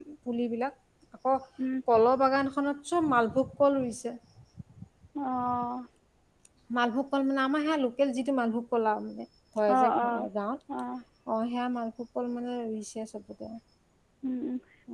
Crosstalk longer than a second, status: none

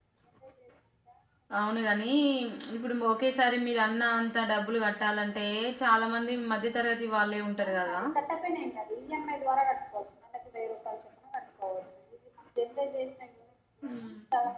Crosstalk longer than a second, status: none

